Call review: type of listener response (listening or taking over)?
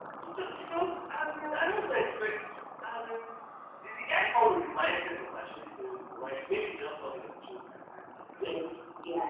taking over